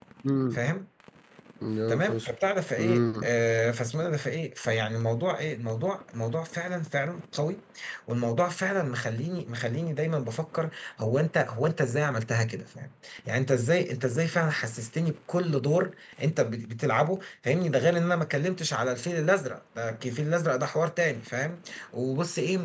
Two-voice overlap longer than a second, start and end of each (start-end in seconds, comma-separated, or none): none